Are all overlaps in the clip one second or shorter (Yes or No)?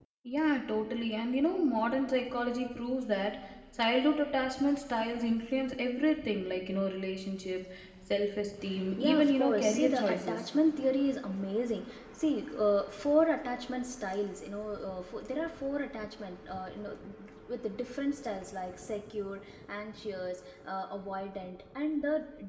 No